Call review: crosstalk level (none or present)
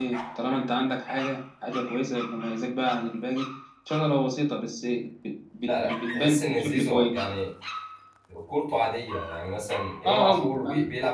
present